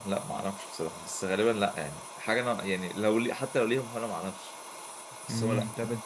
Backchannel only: No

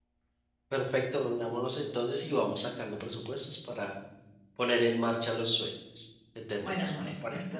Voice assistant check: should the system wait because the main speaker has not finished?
No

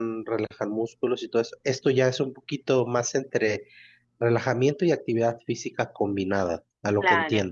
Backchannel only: No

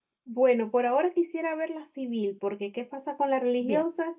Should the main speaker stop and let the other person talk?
No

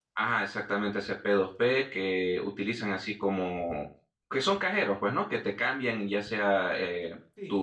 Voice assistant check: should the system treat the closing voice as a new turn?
Yes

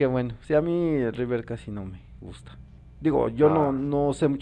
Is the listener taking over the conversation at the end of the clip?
No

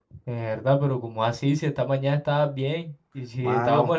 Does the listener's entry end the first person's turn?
No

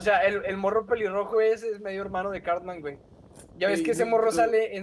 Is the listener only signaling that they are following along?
Yes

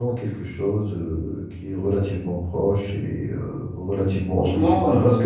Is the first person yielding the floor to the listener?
No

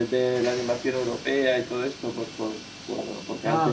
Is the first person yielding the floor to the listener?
No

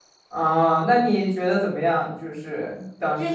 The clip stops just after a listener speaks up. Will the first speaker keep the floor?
No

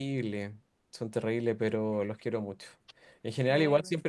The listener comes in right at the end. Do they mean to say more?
No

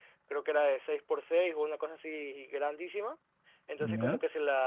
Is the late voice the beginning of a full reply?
No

